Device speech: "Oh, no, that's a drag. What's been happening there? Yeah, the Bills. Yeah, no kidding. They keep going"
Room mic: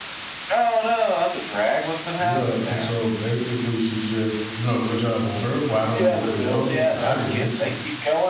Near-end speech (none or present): present